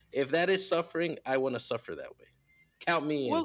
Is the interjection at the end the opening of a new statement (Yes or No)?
Yes